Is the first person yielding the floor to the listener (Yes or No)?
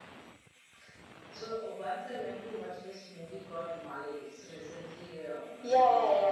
Yes